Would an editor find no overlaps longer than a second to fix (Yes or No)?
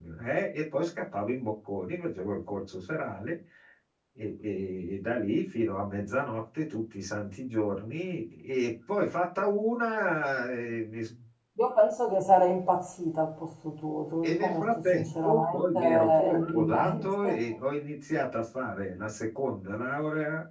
No